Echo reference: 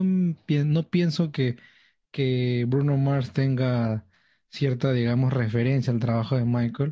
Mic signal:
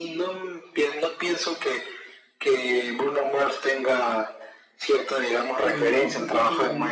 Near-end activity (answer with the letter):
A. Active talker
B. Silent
A